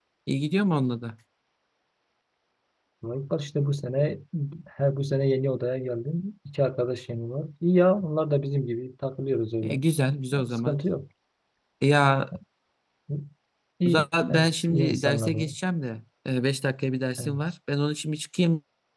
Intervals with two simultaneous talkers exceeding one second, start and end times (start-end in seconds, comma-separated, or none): 13.9-15.4